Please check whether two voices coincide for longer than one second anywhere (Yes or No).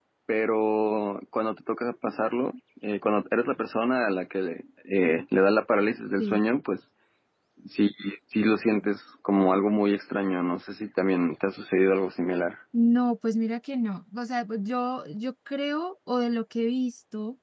No